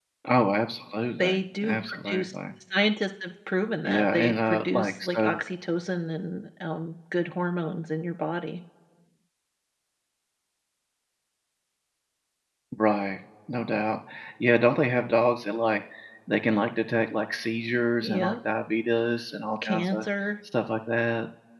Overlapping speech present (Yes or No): Yes